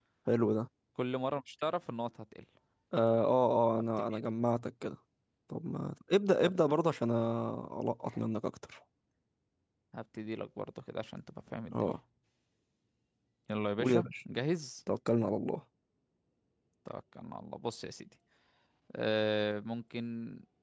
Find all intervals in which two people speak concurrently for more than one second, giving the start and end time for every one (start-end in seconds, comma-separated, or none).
none